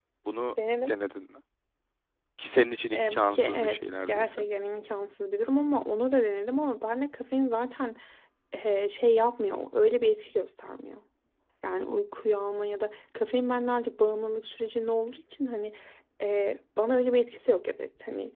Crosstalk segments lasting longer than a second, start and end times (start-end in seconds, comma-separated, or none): 2.9-4.5